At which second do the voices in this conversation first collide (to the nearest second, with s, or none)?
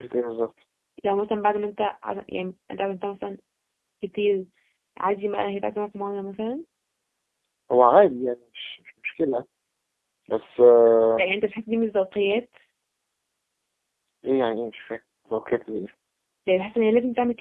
none